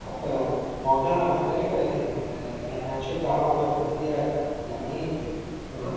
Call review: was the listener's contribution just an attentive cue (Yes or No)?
No